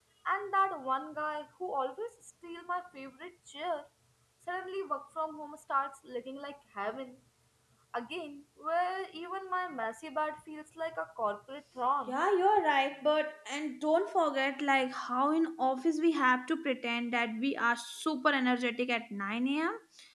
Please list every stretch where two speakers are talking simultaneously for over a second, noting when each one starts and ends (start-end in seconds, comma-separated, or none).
none